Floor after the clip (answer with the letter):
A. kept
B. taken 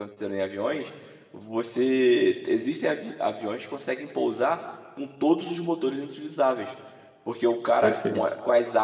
A